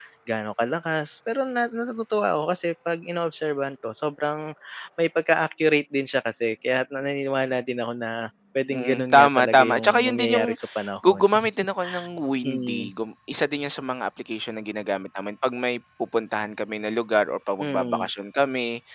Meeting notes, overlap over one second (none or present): present